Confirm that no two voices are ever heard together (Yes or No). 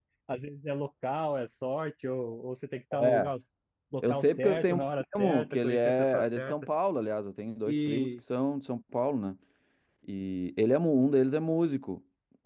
No